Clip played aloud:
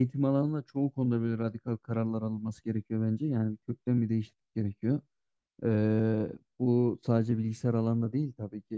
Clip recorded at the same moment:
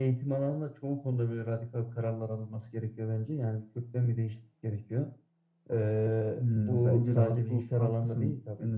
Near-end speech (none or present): present